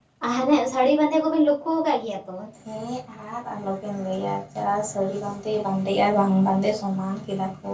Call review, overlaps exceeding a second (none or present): none